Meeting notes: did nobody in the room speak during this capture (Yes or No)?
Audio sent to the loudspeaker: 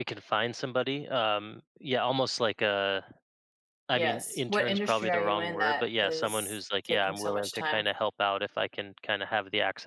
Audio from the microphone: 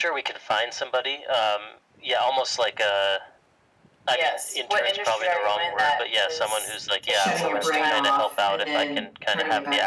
No